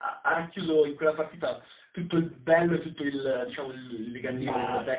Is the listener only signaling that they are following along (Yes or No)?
Yes